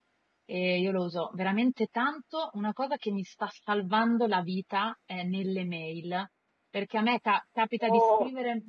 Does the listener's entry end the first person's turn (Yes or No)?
No